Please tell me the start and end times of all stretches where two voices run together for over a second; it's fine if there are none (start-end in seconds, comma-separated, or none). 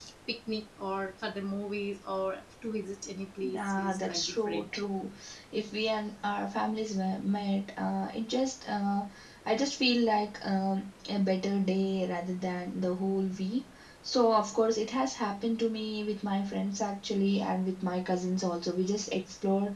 3.4-4.7